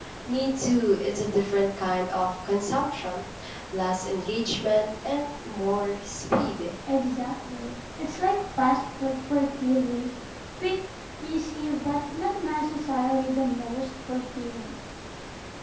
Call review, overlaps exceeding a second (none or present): none